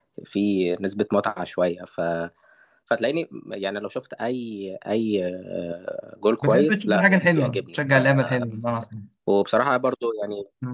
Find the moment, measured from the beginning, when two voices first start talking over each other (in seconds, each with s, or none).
6.4 s